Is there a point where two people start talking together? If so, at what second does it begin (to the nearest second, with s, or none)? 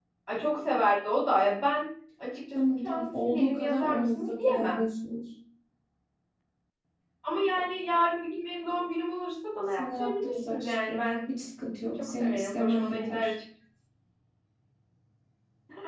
3 s